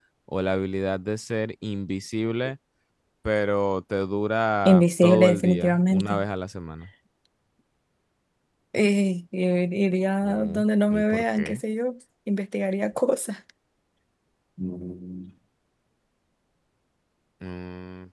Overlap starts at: 4.7 s

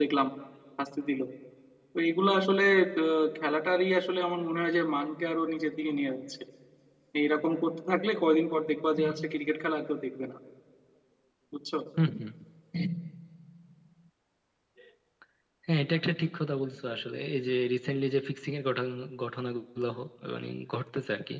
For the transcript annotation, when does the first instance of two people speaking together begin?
none

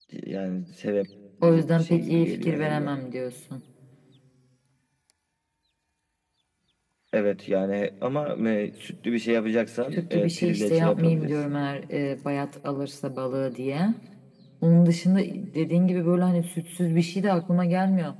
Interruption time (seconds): 1.4 s

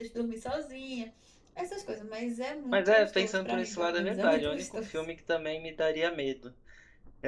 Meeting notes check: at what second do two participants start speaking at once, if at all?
2.7 s

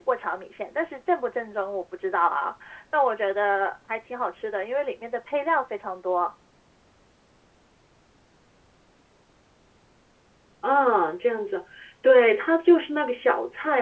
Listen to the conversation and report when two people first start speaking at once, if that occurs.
none

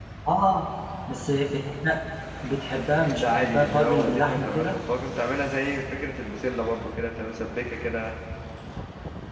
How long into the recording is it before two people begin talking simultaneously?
3.2 s

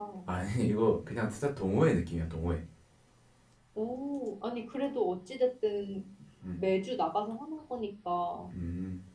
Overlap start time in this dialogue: none

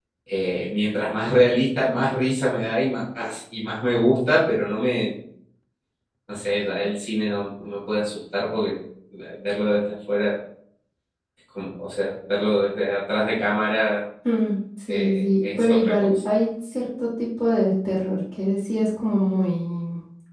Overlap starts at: 14.9 s

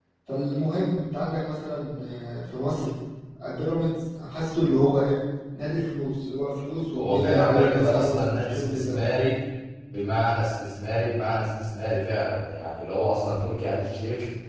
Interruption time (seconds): 7.0 s

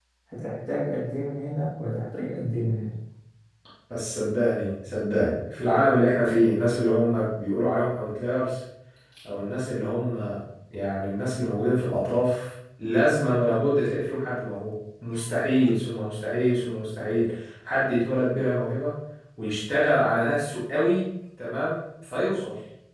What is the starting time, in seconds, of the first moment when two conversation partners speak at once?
none

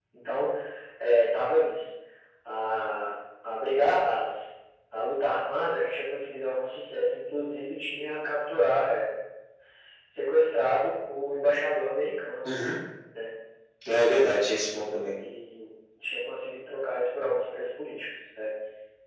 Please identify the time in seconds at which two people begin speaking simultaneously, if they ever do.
none

